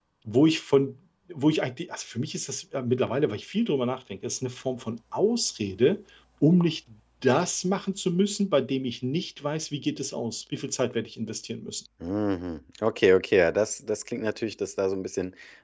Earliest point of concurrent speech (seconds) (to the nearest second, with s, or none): none